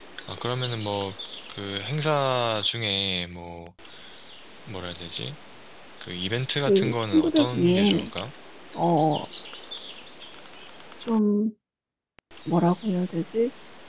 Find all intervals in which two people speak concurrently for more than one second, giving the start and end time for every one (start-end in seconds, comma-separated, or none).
6.6-8.1